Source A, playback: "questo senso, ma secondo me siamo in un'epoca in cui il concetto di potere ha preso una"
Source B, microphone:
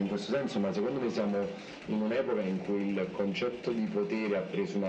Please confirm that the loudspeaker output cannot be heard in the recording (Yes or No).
No